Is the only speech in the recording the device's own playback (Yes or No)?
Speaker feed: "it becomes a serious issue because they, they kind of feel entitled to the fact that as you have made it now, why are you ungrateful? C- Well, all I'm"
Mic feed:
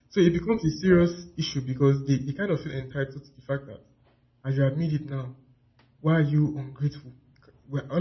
Yes